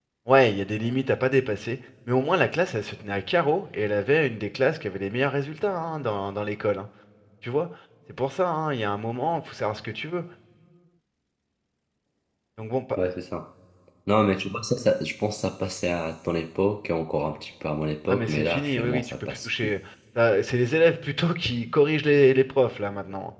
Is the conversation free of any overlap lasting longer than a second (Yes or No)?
No